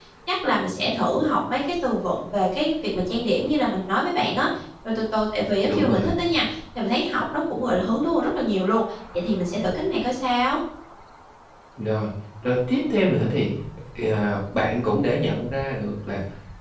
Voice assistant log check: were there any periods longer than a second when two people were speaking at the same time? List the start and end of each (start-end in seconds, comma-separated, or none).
none